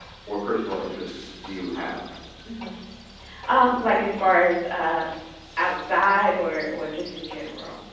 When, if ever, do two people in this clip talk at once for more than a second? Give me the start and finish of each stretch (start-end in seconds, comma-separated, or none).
none